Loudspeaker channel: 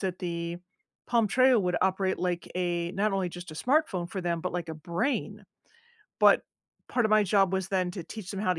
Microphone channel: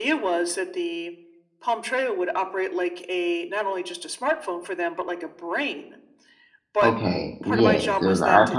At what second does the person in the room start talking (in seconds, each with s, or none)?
6.8 s